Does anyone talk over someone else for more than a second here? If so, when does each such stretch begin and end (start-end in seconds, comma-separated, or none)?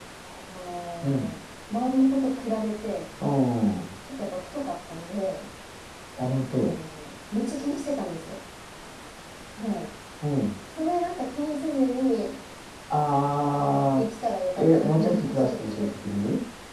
14.5-16.2